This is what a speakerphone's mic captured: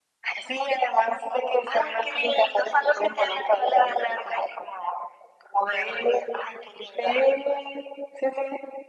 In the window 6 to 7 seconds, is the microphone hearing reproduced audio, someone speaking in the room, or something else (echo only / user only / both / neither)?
echo only